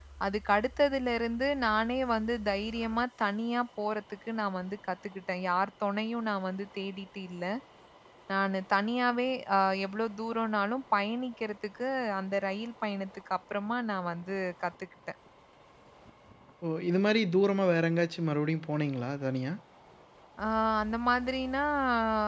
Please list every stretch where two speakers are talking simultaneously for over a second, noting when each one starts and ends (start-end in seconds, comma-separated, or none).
none